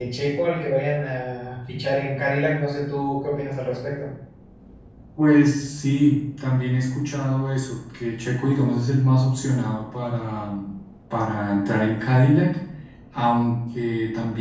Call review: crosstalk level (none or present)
none